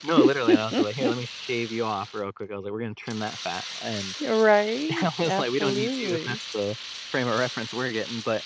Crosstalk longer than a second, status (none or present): present